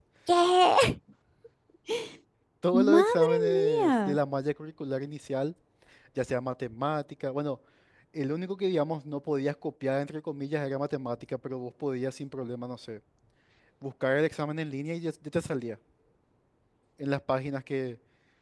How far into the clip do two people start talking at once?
2.9 s

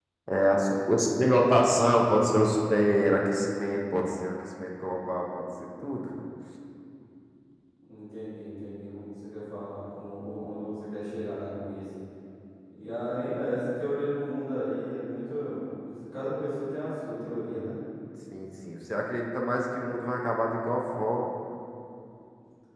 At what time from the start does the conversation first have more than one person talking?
none

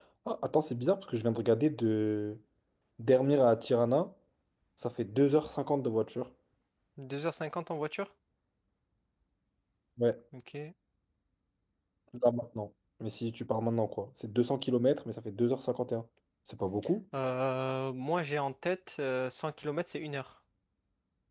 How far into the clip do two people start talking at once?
none

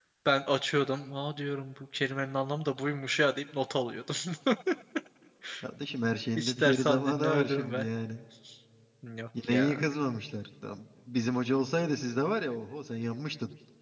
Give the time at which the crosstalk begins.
6.4 s

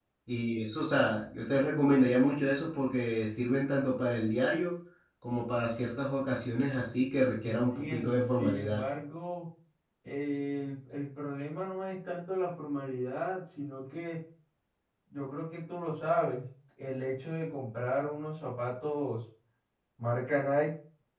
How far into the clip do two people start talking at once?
7.4 s

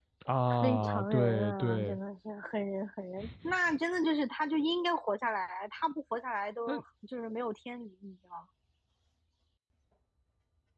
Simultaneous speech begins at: 0.6 s

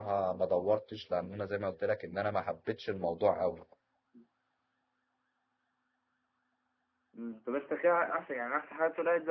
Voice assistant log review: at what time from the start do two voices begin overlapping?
none

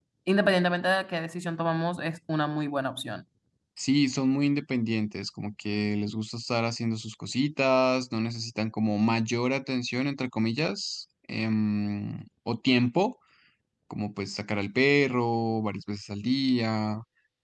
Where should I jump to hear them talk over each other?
none

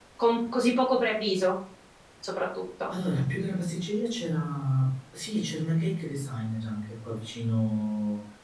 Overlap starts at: none

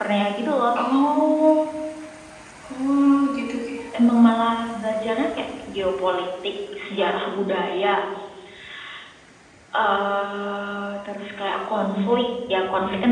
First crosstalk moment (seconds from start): none

